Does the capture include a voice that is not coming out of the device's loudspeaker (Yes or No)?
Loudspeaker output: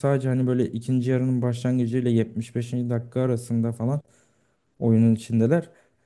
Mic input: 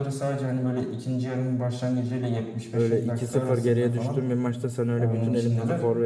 Yes